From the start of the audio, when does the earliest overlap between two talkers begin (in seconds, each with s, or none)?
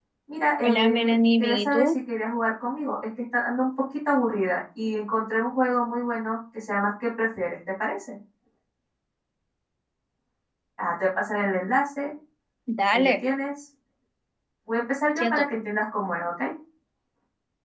0.6 s